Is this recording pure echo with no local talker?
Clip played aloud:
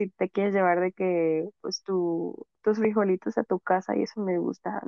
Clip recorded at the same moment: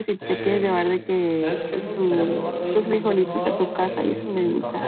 No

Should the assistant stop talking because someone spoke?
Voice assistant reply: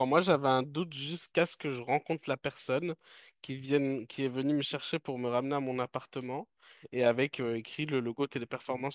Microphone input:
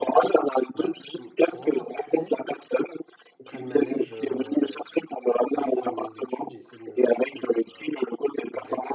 Yes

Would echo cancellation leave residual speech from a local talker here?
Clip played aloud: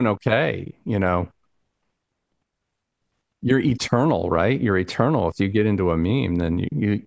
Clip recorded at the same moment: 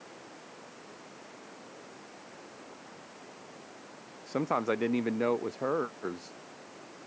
Yes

